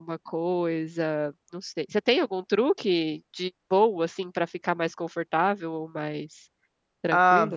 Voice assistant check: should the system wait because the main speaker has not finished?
No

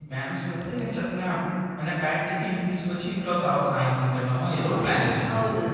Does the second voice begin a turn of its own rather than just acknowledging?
Yes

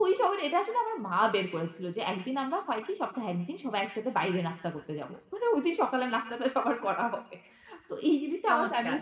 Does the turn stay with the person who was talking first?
Yes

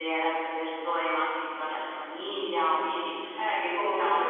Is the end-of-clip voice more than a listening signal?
Yes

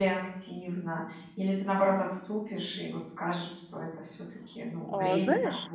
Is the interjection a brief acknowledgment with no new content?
No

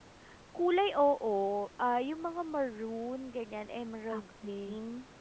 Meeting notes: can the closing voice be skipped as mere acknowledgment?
No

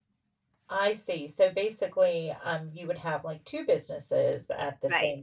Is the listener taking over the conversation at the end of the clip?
Yes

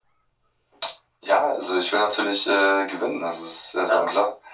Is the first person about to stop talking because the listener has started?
Yes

